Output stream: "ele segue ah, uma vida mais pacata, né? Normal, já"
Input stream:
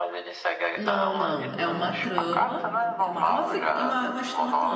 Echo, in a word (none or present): present